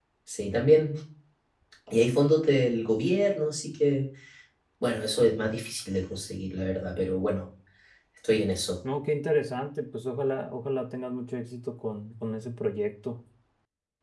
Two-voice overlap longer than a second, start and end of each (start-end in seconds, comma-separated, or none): none